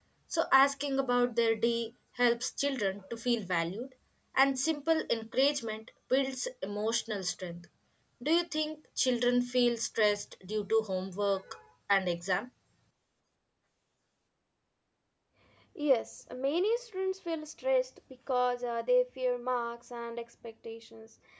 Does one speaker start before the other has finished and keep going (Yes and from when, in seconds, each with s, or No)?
No